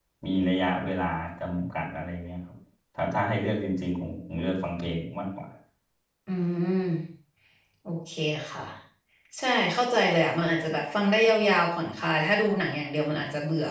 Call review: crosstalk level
none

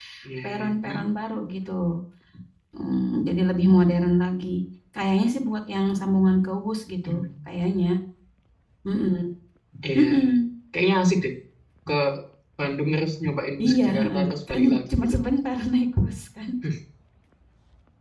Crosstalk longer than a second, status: present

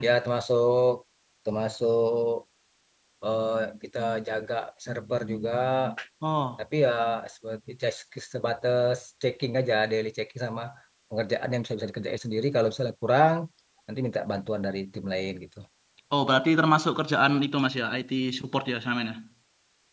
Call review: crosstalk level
none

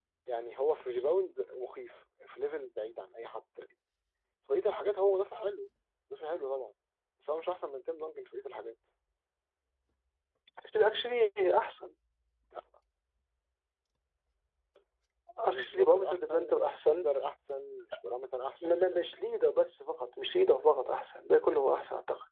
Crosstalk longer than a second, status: present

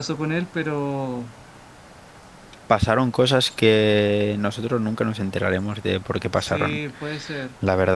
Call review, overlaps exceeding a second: none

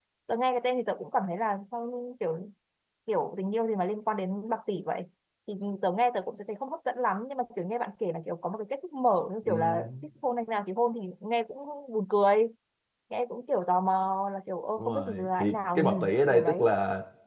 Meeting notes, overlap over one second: present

